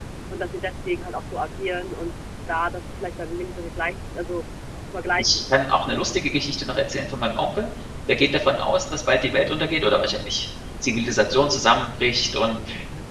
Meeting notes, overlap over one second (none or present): present